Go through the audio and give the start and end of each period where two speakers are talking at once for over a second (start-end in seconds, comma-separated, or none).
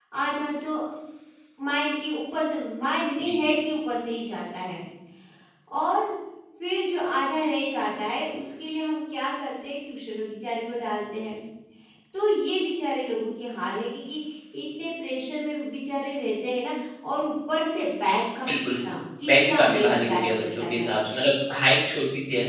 19.3-20.9